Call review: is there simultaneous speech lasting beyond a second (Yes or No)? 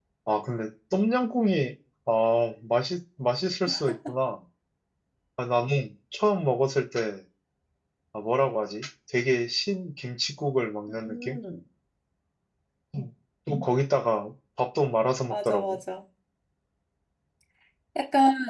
No